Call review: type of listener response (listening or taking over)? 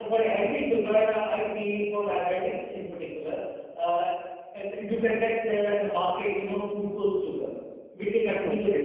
listening